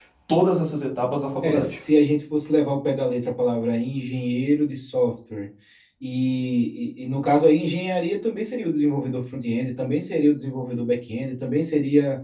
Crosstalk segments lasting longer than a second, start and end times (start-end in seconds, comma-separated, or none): none